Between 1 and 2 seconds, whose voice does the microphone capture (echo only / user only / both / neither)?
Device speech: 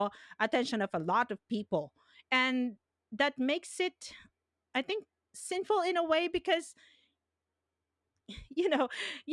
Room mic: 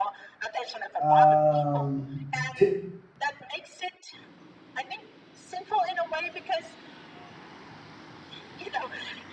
both